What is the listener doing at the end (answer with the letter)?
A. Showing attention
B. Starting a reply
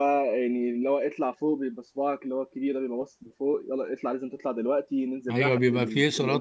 B